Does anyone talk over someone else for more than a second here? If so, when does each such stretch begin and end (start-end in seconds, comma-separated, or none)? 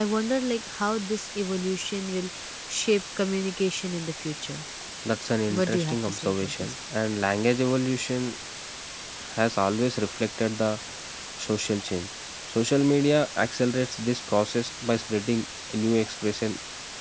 5.5-6.7